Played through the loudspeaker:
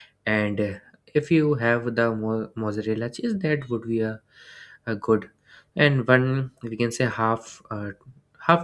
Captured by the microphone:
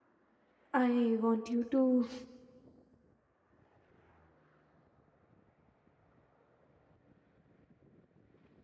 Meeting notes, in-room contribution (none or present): present